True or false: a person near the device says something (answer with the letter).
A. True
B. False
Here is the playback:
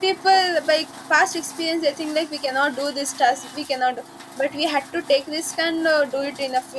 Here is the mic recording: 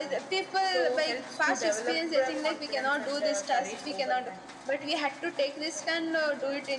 A